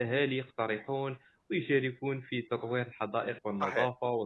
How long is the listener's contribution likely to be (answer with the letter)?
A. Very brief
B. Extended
A